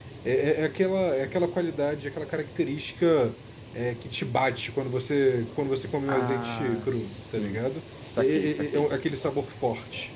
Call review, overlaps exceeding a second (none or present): present